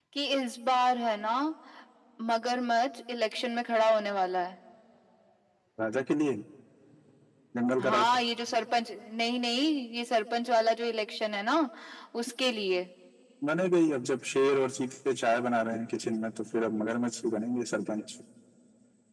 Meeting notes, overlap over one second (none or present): none